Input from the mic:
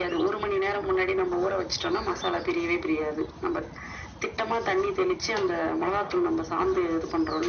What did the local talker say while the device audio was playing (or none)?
none